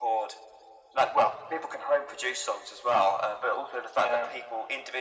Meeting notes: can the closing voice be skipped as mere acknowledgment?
Yes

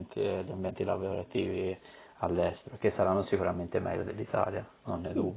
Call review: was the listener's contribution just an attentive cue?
No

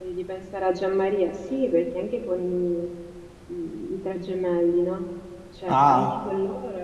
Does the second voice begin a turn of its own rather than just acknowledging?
No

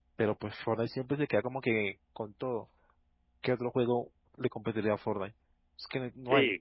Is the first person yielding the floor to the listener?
Yes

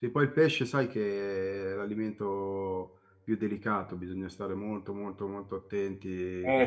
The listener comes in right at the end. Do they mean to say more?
Yes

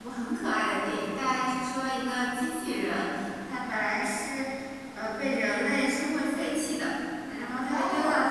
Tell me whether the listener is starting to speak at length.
No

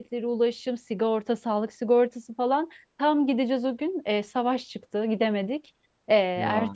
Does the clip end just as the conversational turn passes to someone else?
No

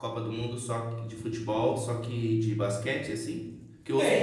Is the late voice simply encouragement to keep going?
Yes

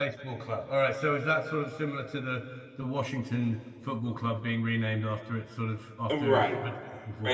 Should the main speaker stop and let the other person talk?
Yes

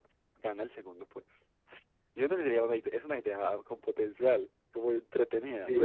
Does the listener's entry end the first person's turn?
Yes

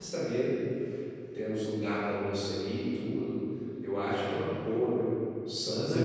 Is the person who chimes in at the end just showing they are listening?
Yes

